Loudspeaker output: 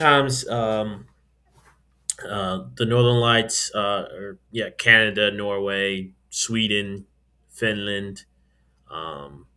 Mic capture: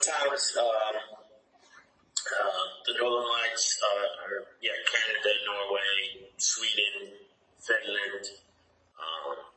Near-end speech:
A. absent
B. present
A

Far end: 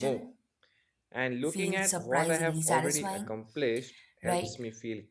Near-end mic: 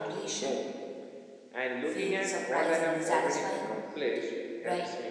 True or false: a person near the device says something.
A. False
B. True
A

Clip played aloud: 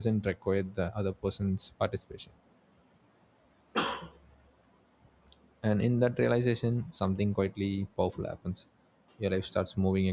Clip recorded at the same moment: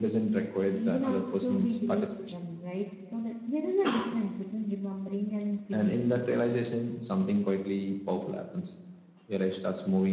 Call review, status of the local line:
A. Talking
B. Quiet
A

